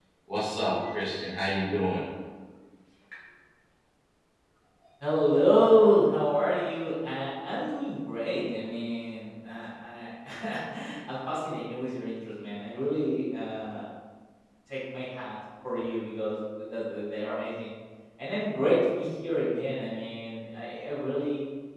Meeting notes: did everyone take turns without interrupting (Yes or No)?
Yes